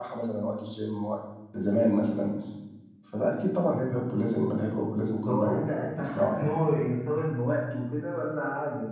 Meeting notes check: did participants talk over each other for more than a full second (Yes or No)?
Yes